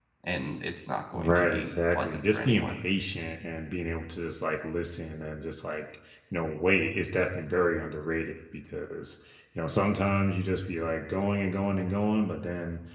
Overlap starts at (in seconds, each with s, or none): 1.1 s